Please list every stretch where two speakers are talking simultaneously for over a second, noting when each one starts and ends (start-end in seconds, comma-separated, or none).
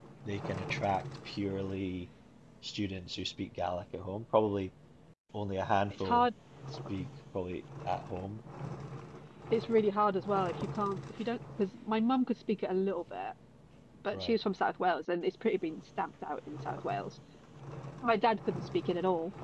none